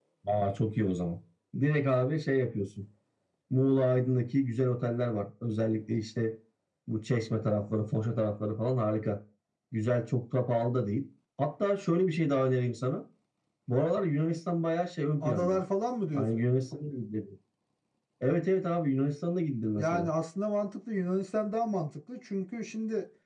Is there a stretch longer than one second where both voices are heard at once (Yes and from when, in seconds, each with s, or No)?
No